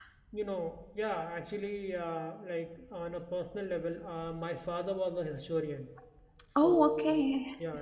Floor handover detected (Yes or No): No